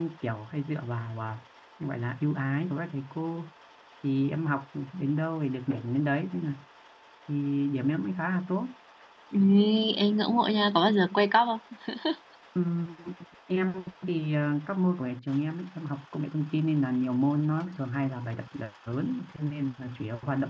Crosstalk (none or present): none